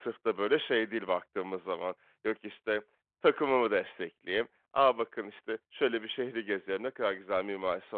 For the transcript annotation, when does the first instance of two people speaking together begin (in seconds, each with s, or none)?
none